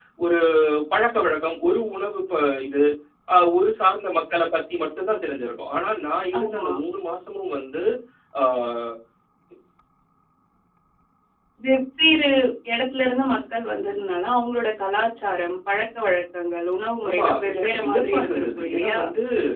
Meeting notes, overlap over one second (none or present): present